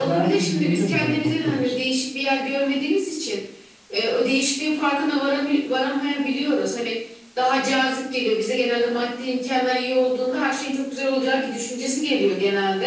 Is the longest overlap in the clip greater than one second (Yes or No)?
Yes